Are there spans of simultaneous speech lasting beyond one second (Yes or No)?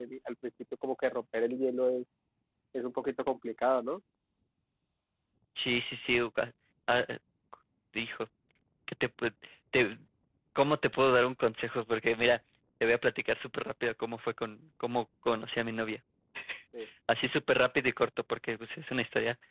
No